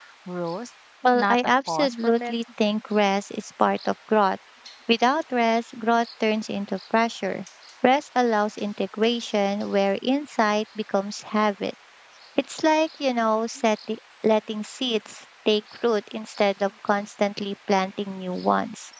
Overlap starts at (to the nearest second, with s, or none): 1 s